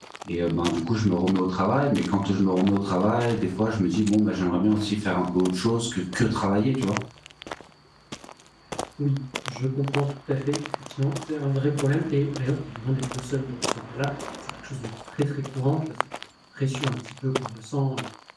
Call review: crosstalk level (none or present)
none